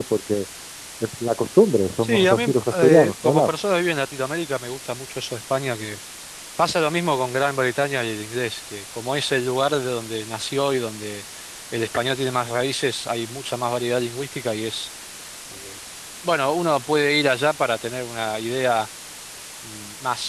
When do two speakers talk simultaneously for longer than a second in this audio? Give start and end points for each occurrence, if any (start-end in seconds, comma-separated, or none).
2.0-3.5